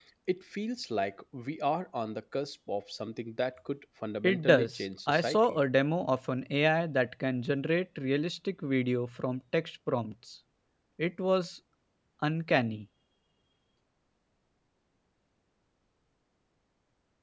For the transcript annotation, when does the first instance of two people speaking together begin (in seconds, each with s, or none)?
4.2 s